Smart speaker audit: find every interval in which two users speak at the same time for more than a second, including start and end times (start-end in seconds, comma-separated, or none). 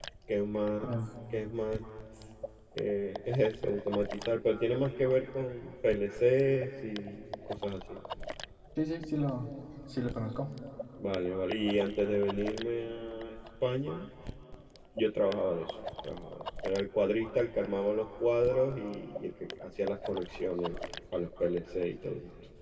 none